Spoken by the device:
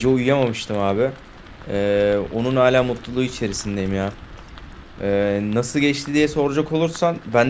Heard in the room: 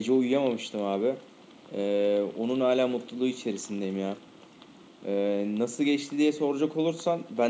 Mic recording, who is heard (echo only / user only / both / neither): echo only